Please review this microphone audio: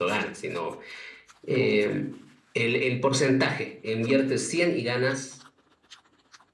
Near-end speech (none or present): none